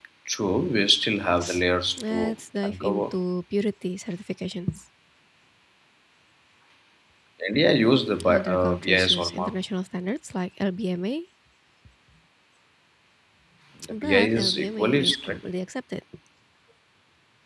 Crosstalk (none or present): present